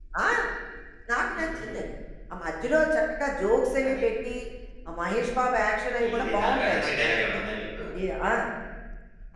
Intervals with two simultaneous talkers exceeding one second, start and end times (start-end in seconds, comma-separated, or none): 6.1-7.4